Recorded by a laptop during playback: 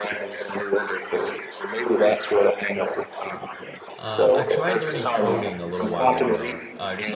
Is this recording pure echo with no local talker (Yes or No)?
No